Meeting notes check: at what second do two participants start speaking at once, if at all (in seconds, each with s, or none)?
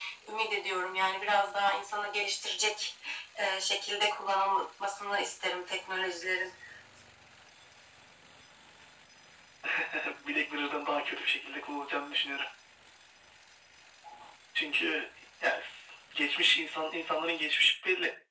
none